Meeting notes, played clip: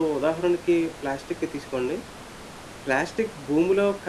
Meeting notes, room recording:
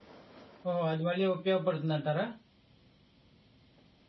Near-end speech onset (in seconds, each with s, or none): 0.7 s